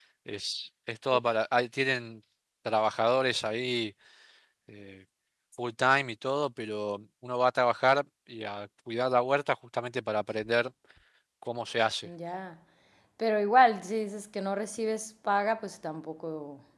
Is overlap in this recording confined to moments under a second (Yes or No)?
Yes